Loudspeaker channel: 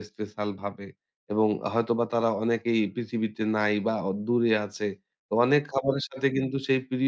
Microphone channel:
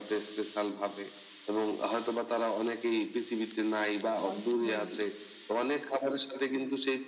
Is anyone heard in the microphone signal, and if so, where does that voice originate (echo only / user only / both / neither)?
both